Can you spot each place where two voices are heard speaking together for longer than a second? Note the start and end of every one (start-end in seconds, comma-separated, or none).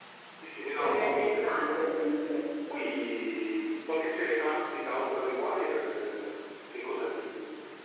0.8-2.1